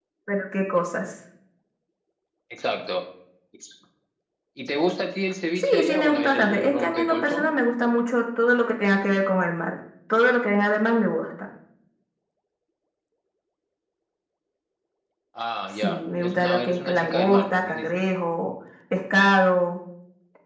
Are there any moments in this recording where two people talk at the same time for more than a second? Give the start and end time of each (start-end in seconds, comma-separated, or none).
5.6-7.5, 15.8-17.9